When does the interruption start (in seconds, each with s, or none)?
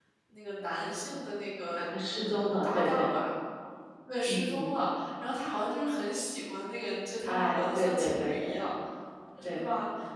1.8 s